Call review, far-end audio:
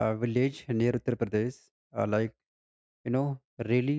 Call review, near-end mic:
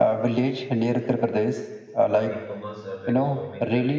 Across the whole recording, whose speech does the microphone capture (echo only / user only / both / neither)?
both